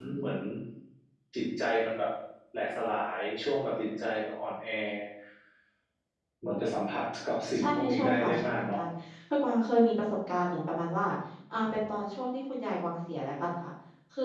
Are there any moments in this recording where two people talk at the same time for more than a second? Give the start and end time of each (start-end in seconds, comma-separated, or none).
7.6-8.8